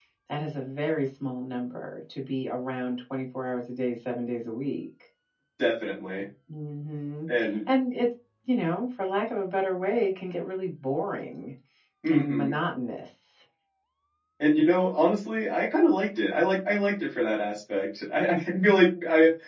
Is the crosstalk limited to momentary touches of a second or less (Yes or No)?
Yes